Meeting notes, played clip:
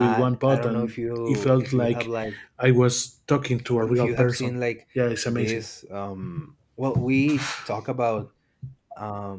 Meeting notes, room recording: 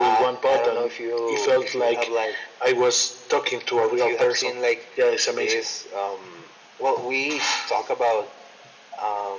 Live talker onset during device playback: none

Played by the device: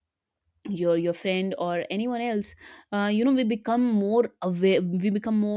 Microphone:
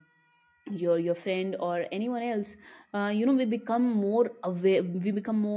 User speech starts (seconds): none

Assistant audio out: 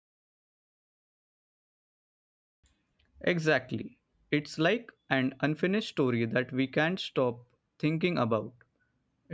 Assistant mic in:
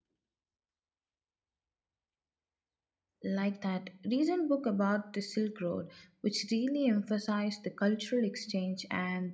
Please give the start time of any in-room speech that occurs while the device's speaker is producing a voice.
3.2 s

